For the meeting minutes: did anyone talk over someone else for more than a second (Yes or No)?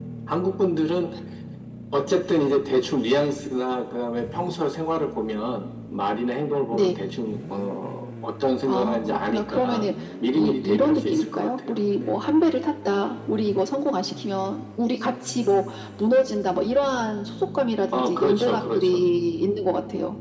Yes